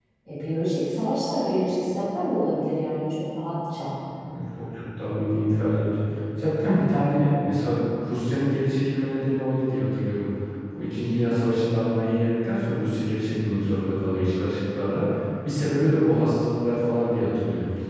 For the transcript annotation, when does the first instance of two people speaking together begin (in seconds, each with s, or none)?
none